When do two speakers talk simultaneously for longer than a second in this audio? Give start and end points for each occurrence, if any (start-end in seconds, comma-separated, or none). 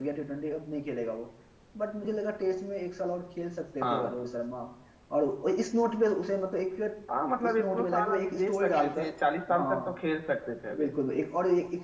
7.4-9.1